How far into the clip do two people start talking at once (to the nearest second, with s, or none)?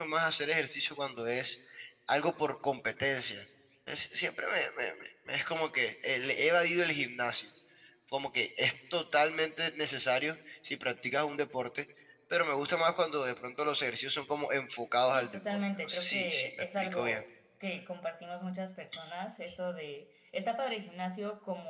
15 s